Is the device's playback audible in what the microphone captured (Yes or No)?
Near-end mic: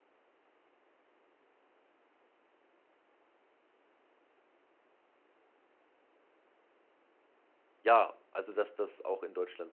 No